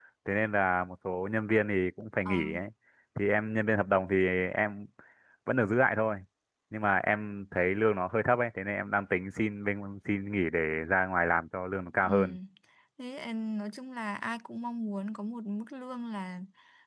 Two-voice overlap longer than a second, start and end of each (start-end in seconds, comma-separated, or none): none